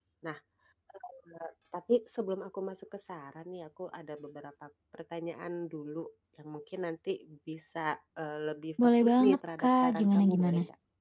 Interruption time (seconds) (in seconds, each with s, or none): 8.8 s